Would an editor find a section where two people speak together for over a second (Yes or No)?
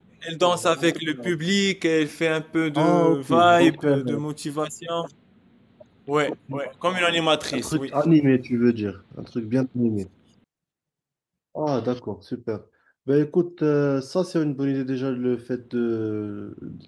Yes